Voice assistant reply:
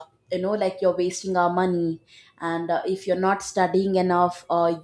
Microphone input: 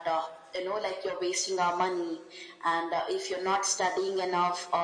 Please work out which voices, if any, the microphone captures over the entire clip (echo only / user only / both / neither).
echo only